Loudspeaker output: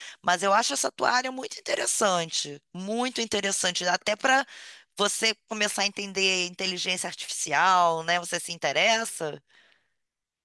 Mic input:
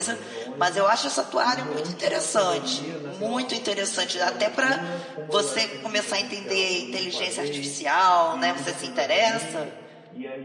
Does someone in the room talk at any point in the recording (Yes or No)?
Yes